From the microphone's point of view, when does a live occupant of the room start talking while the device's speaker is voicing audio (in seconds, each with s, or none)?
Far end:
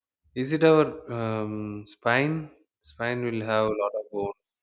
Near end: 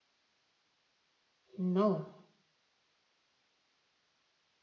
1.6 s